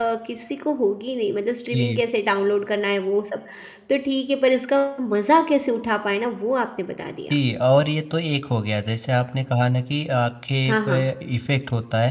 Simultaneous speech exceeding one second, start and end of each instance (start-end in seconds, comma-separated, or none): none